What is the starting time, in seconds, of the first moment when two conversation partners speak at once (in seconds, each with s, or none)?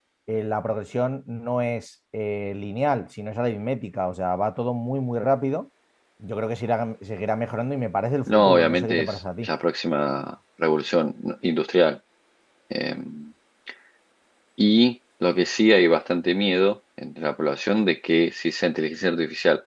8.3 s